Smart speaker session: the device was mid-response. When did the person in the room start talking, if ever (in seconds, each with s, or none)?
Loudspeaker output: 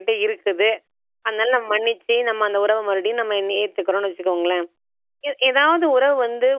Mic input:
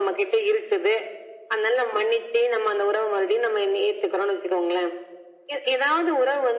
none